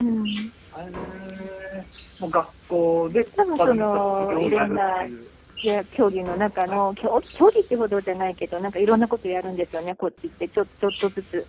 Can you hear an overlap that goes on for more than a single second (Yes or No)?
Yes